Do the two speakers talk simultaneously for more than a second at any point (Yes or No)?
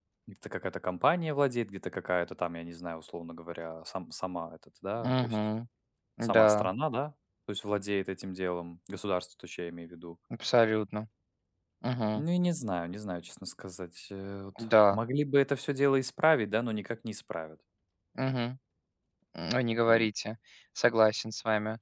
No